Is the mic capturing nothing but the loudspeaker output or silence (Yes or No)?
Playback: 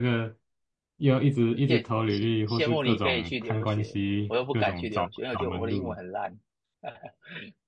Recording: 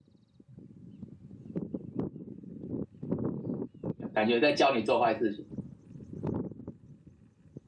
No